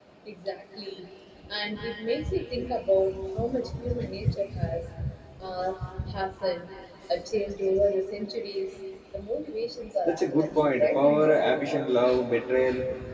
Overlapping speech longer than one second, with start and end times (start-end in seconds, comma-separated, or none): 10.0-11.8